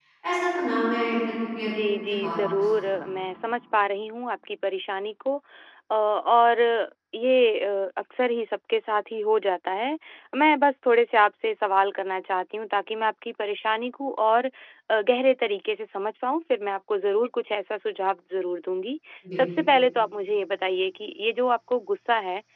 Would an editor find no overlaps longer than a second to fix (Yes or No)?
No